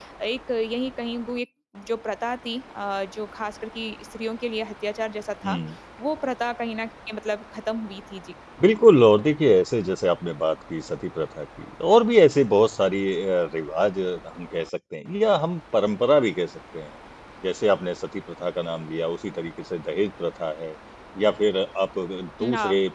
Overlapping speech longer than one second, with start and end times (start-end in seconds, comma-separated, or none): none